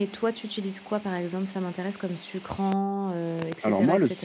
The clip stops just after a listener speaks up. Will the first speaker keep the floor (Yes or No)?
No